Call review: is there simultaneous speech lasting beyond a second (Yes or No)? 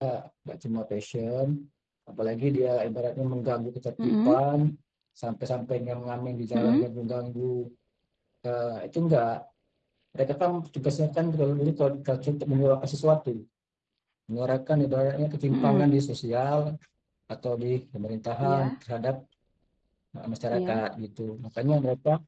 No